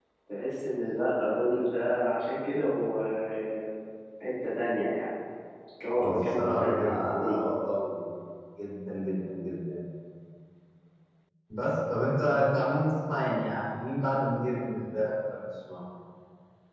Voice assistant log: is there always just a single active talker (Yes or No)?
No